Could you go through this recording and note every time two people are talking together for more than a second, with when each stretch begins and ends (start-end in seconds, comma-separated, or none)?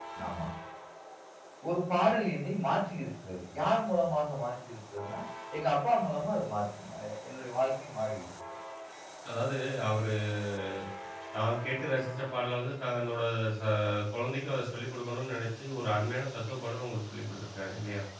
none